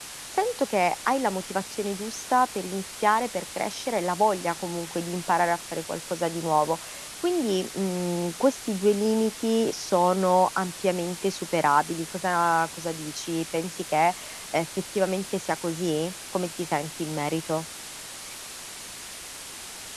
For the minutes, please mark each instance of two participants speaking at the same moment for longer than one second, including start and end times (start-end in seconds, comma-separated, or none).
none